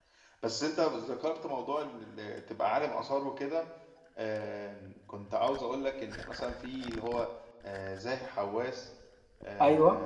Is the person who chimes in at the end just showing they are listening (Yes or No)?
Yes